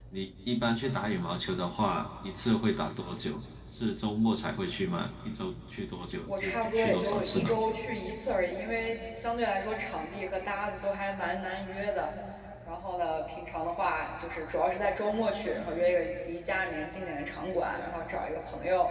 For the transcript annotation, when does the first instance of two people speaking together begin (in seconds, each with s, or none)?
6.3 s